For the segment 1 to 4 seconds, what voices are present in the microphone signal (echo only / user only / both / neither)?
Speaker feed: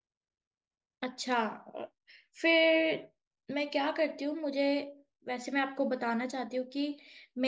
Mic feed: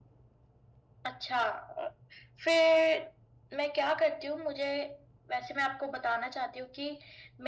echo only